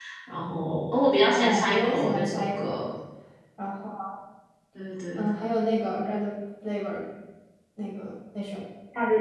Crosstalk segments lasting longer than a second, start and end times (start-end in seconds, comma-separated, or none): 1.3-2.8